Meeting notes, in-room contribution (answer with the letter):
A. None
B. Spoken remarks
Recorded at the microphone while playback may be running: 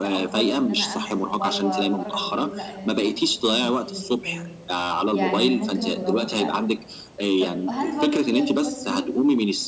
B